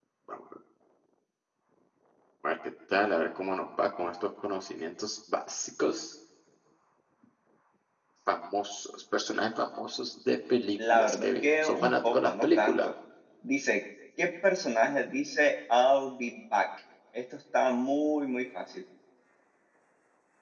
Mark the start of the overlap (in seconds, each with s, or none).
10.8 s